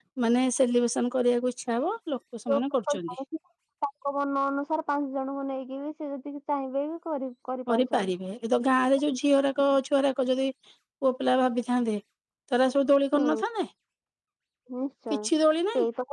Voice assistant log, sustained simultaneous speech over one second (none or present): none